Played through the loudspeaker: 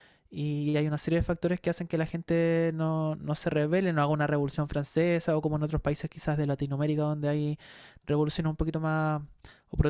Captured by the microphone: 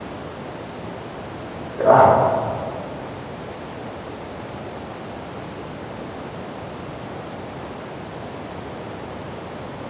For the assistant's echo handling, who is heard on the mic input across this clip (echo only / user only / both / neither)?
user only